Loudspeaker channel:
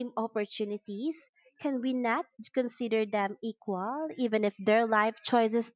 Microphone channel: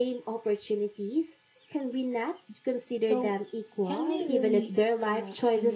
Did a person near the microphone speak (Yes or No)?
Yes